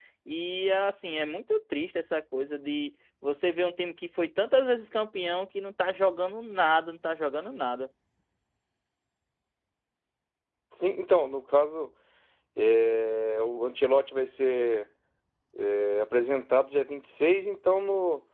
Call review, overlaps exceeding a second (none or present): none